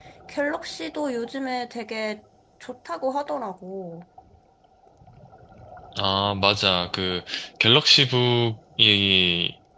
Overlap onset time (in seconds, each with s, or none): none